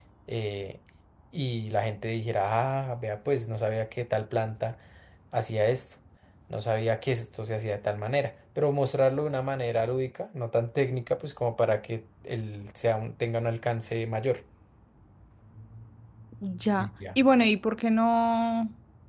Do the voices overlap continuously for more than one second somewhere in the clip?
No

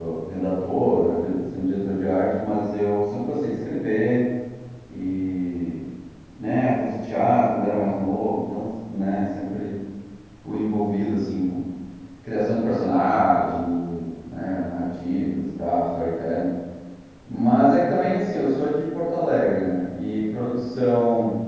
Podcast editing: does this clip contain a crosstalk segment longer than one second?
No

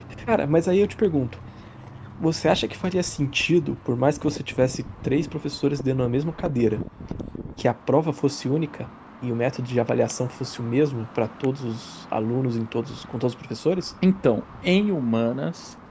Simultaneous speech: No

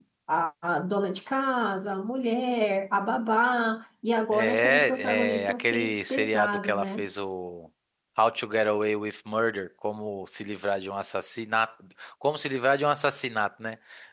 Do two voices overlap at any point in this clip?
Yes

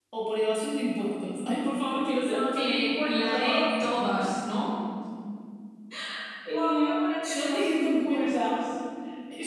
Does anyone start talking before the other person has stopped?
Yes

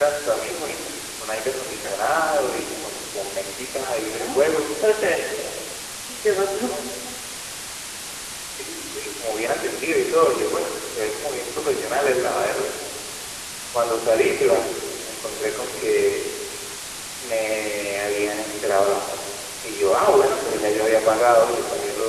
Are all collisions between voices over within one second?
Yes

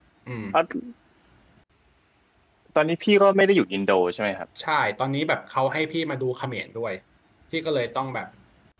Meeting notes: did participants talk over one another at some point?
No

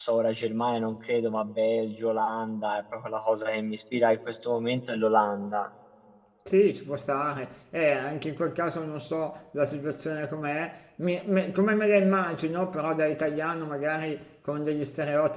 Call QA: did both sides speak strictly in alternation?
Yes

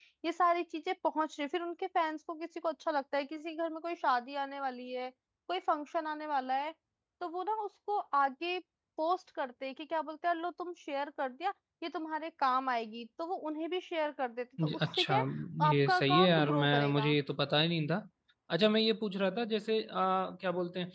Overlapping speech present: Yes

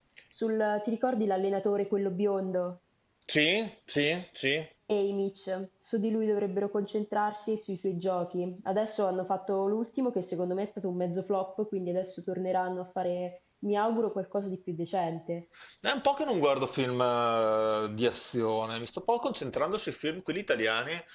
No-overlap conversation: Yes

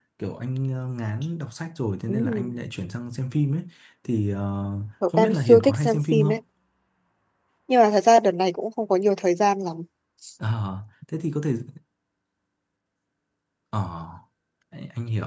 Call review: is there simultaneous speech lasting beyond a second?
Yes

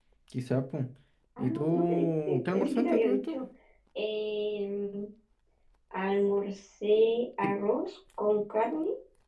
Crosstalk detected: Yes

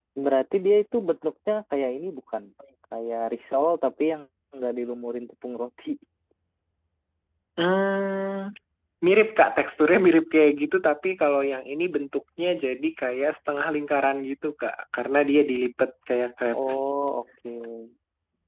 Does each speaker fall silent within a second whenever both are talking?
Yes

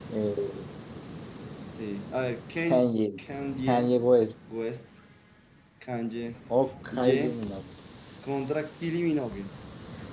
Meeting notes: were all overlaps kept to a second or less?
Yes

